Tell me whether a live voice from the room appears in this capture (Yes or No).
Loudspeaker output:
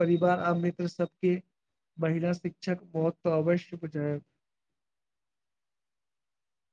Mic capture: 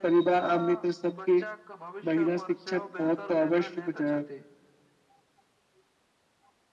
Yes